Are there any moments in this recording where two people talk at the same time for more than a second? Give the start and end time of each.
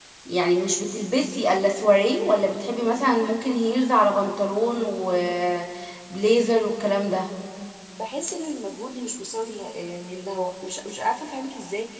none

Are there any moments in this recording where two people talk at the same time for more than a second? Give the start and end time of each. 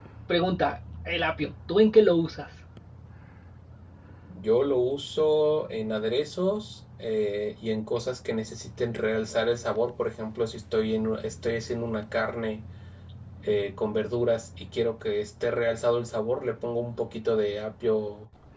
none

